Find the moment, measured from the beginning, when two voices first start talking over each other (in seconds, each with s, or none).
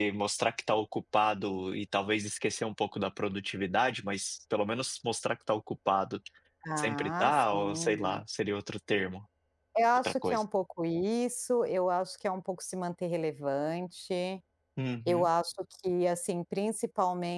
6.8 s